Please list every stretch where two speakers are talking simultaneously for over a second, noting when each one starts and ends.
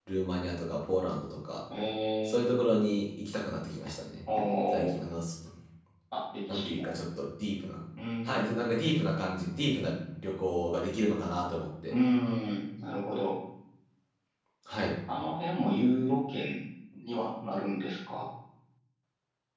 none

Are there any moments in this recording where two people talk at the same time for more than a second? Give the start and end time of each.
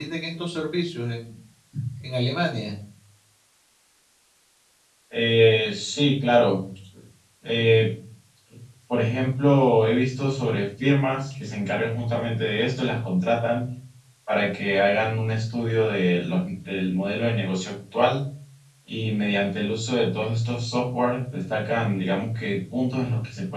none

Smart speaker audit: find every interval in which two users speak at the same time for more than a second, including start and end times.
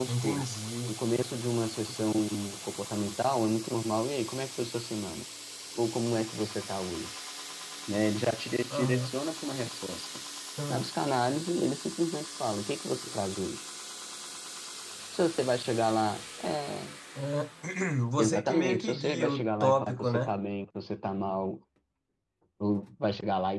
18.2-20.3

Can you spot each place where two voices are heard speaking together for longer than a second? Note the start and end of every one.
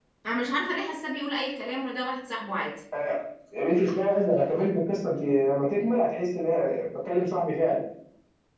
none

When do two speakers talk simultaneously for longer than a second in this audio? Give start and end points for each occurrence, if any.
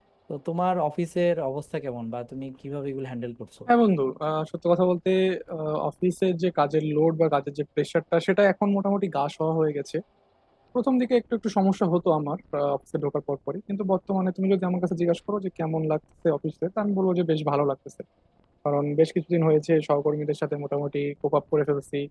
none

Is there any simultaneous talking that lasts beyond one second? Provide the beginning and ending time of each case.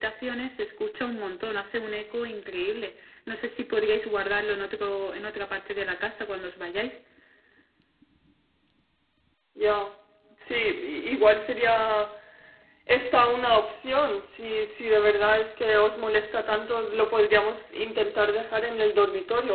none

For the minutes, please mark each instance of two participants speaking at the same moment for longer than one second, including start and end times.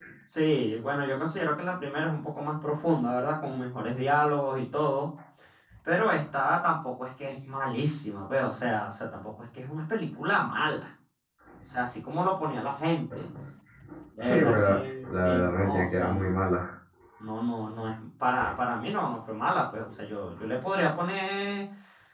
14.2-16.4

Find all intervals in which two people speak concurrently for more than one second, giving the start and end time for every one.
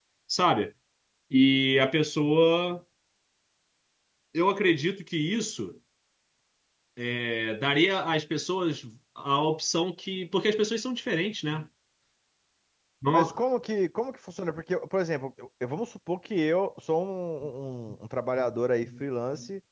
none

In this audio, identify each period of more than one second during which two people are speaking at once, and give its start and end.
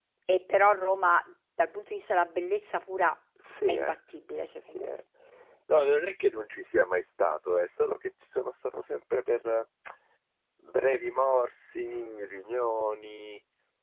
none

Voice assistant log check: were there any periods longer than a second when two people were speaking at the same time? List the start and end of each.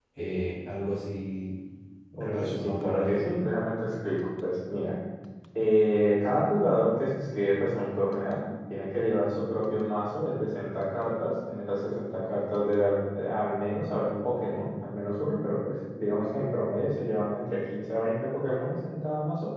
2.2-3.4

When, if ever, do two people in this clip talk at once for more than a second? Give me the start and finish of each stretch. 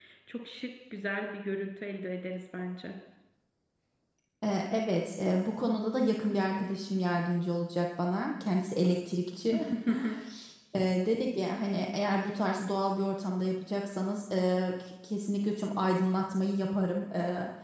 none

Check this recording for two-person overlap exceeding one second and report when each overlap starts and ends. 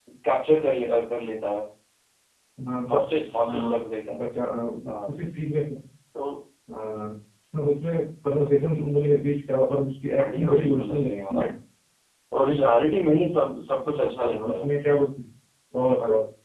10.2-11.4

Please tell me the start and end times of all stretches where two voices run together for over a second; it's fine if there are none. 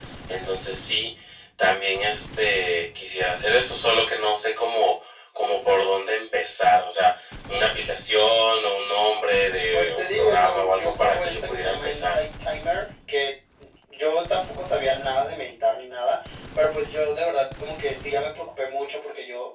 9.7-12.2

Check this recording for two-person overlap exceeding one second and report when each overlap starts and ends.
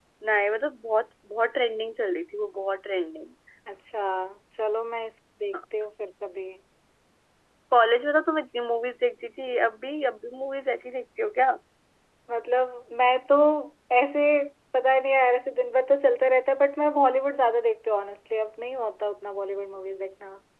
none

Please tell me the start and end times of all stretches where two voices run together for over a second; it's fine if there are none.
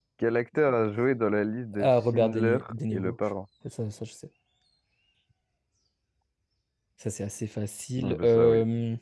1.8-3.2

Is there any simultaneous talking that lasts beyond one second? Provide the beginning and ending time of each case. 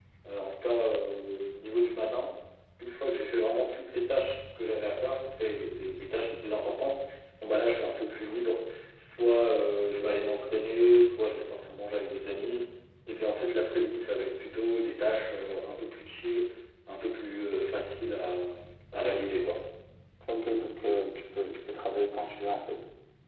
none

